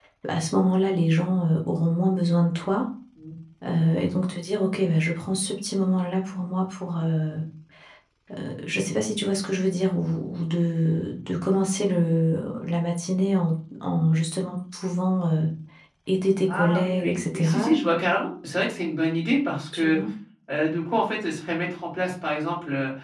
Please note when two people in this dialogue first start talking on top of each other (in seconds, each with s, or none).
16.5 s